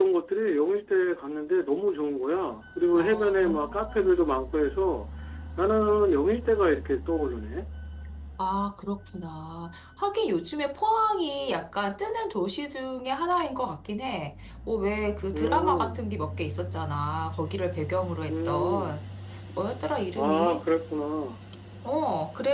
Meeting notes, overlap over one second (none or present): present